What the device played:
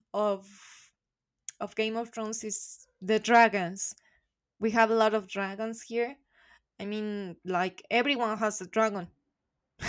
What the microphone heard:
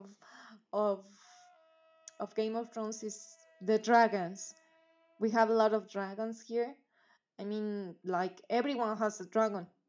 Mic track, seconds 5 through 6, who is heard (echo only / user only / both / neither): echo only